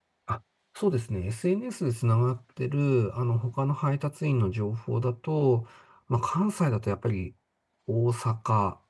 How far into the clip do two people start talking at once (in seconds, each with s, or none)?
none